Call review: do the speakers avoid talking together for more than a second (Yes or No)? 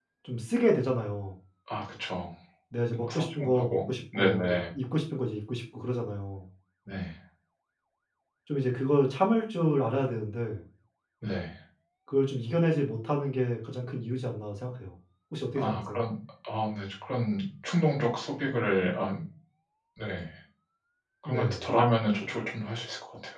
No